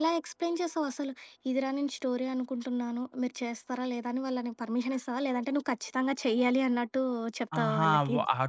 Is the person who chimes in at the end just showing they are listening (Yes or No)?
No